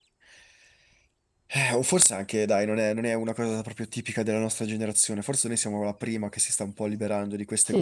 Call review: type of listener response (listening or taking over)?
taking over